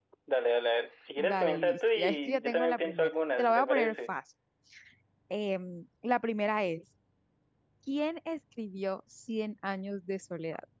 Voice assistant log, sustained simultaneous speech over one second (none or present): present